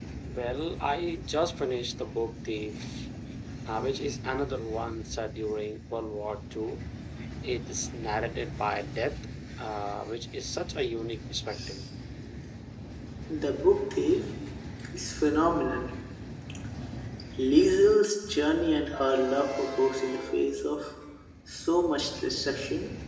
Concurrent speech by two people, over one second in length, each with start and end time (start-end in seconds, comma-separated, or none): none